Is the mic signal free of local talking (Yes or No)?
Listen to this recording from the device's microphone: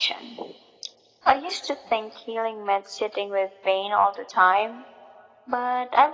Yes